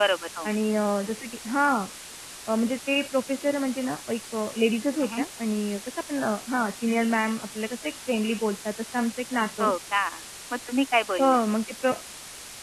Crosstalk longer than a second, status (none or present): none